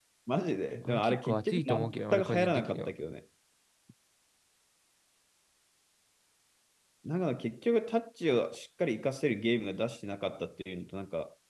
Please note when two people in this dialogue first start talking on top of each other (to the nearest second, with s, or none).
1 s